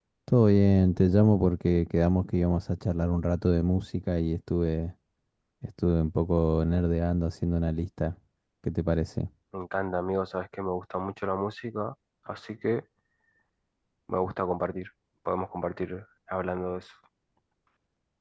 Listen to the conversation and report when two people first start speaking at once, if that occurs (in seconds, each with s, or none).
none